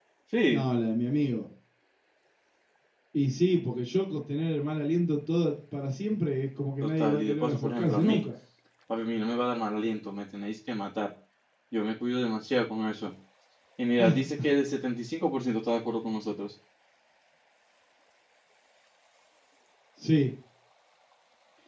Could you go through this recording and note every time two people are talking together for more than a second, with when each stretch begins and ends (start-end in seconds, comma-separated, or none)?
6.8-8.2